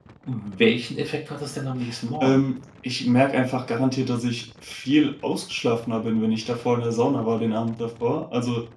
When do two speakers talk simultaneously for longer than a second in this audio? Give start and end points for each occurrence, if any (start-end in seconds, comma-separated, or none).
none